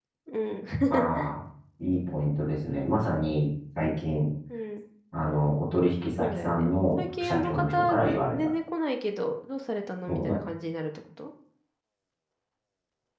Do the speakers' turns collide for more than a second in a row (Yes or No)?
Yes